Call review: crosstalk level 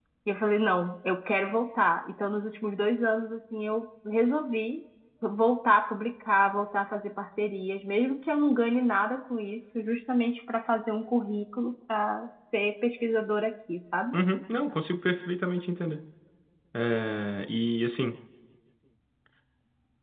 none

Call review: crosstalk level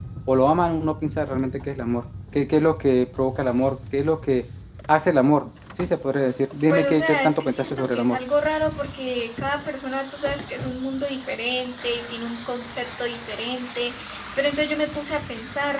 present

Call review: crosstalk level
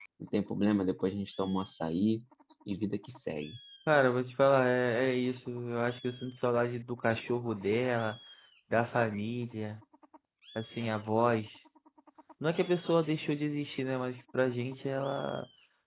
none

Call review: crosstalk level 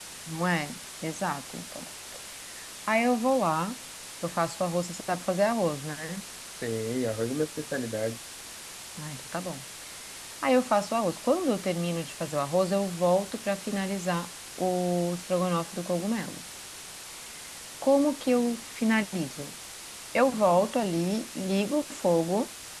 none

